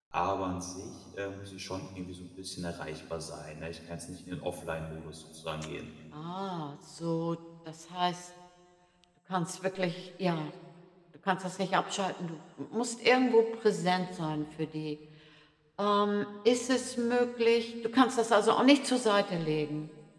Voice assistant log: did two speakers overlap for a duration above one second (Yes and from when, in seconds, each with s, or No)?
No